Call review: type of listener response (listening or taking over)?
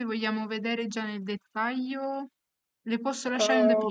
taking over